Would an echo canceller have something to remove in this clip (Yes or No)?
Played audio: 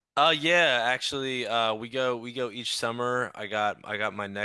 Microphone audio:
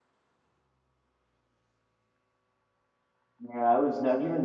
No